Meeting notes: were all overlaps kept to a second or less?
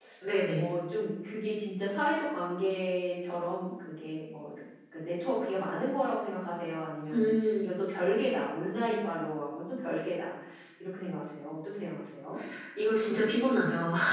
Yes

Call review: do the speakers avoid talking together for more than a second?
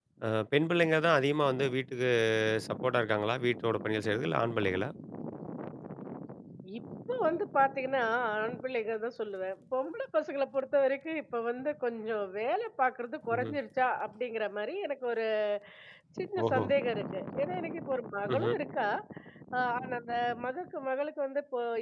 Yes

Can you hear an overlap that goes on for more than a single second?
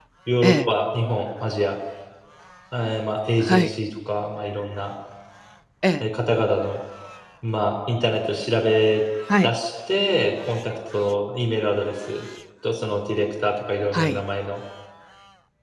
No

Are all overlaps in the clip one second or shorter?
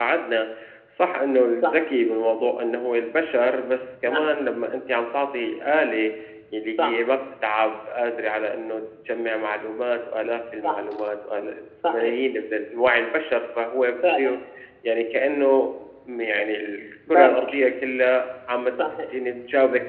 Yes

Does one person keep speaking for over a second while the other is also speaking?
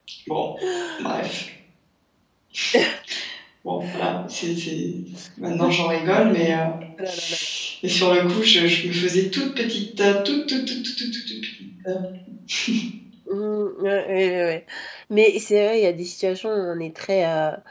No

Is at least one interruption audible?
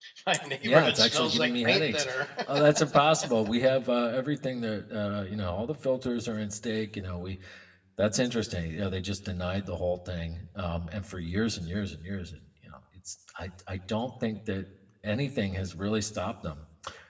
Yes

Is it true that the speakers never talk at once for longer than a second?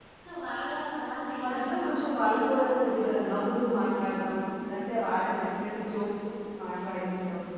No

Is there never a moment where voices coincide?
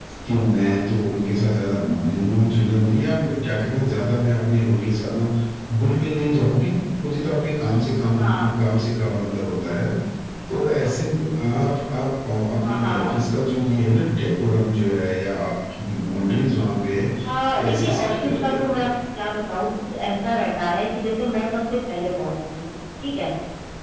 No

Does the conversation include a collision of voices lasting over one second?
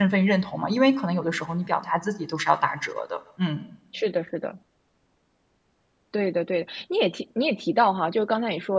No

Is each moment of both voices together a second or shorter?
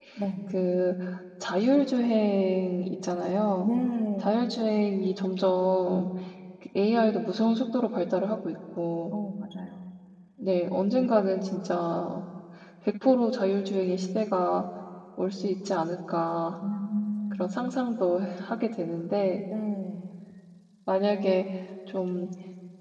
Yes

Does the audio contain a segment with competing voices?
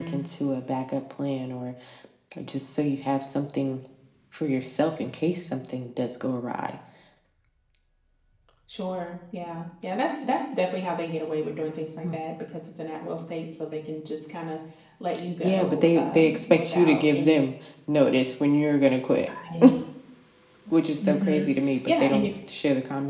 Yes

